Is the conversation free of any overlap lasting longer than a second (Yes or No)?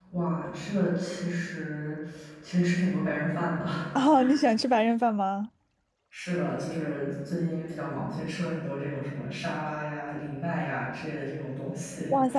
Yes